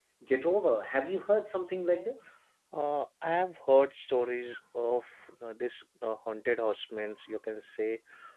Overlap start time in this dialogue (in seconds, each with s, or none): none